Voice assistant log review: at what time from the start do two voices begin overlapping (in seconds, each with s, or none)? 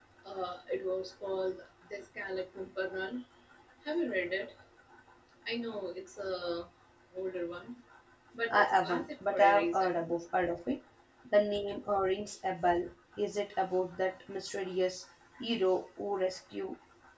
8.5 s